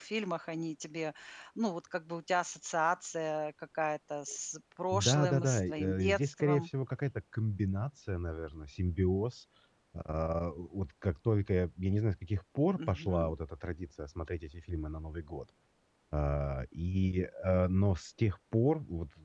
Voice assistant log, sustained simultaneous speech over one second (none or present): present